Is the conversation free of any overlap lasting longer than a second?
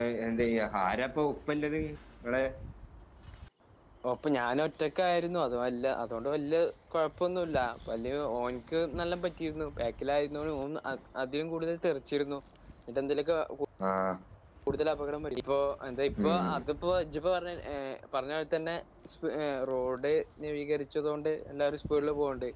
Yes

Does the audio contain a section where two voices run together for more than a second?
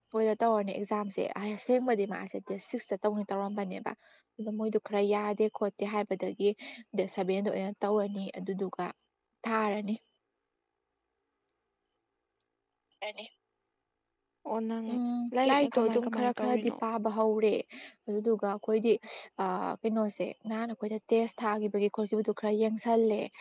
Yes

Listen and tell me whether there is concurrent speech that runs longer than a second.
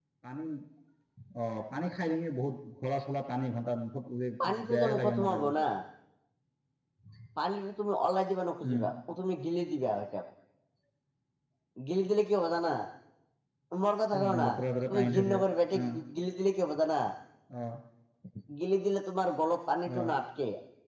Yes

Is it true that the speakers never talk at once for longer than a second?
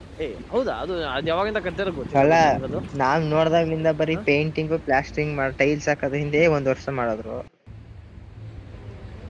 Yes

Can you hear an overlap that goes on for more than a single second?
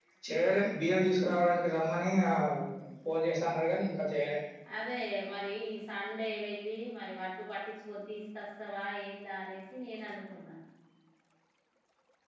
No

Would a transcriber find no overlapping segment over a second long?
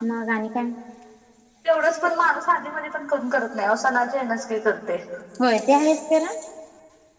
Yes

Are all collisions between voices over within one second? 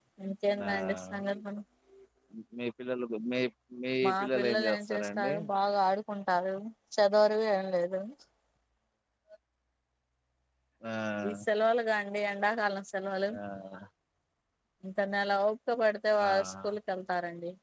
No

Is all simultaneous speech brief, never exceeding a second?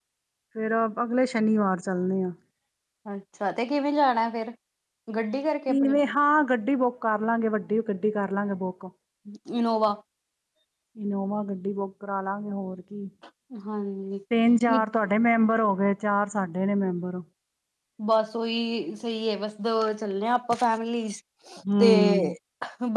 Yes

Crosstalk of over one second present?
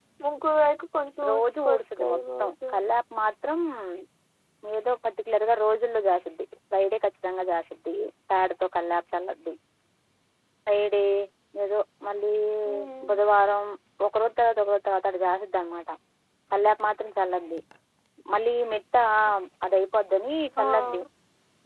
Yes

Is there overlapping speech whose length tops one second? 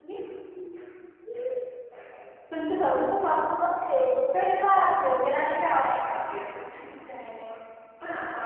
No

